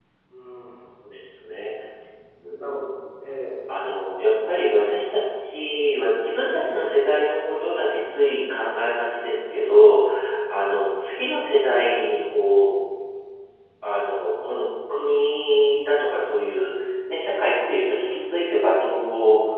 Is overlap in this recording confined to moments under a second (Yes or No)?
Yes